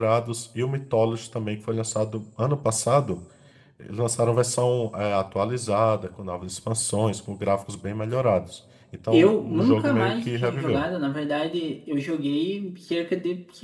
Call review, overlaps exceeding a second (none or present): present